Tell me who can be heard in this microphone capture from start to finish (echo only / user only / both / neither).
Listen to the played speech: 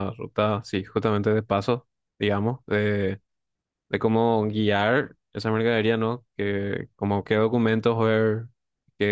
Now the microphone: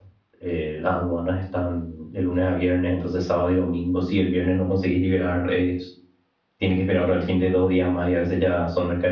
user only